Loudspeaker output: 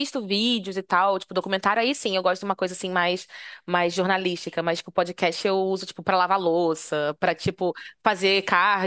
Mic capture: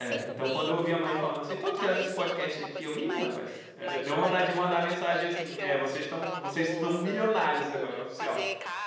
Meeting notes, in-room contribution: present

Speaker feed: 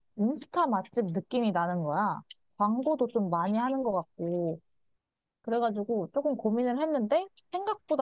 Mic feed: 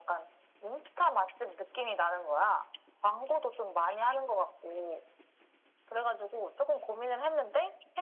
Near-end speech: none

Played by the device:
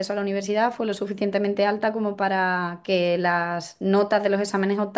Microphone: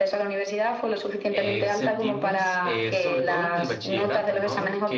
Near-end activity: present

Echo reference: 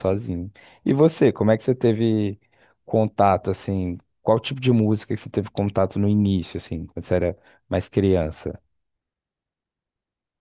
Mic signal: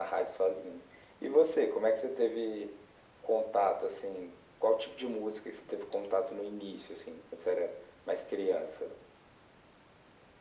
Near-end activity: none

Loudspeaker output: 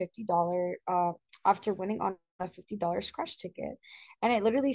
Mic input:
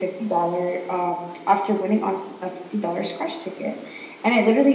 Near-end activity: none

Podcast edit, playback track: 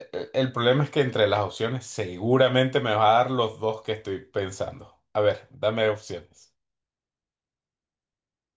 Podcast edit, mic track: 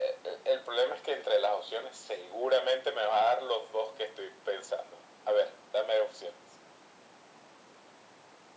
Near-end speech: none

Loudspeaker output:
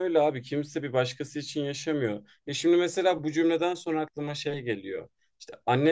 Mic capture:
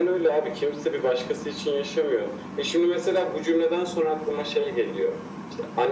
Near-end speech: none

